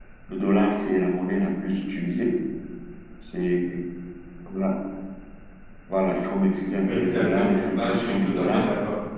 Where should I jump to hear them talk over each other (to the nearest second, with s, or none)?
7 s